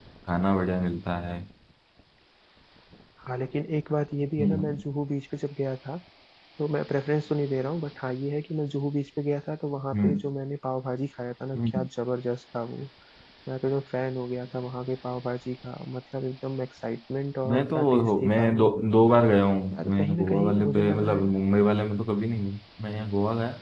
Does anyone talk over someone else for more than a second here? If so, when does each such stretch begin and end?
17.5-18.7, 19.7-21.4

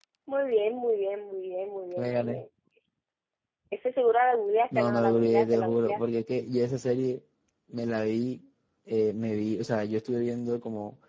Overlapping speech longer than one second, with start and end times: 4.7-6.0

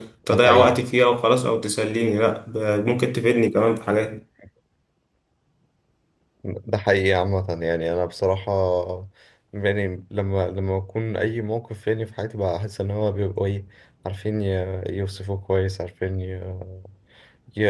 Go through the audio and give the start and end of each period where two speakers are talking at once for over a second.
none

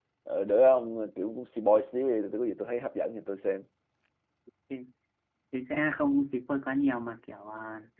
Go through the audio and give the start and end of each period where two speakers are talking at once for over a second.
none

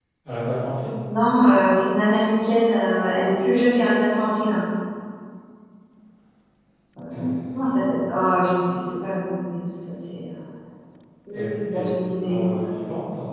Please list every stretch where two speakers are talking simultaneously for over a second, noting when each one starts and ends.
11.3-12.7

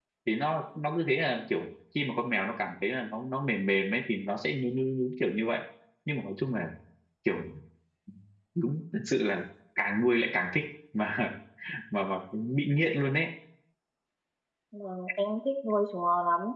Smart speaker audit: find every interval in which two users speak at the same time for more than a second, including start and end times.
none

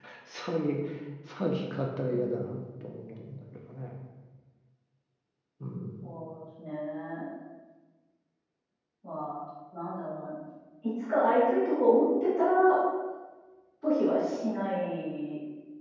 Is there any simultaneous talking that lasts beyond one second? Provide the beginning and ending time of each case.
none

